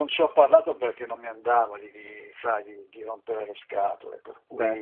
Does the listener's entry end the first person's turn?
No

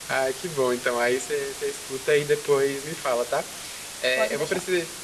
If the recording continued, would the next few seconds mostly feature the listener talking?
No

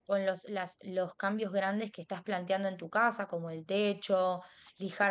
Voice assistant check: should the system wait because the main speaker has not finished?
Yes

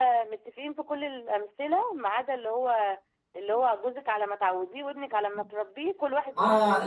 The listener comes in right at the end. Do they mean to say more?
Yes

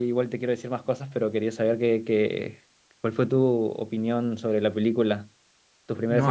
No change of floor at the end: No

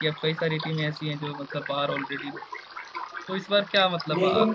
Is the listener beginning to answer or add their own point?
No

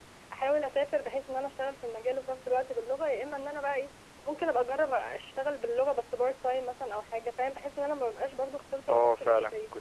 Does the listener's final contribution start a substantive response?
Yes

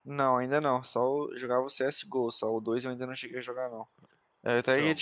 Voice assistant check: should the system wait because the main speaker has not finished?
Yes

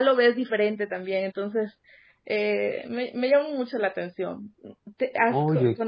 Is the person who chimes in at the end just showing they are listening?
Yes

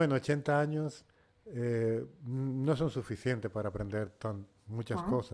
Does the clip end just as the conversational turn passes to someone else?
No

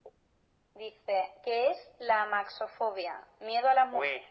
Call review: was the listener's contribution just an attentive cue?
Yes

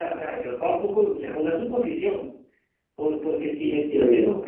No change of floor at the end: Yes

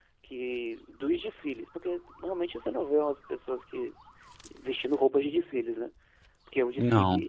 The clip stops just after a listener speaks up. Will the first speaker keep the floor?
Yes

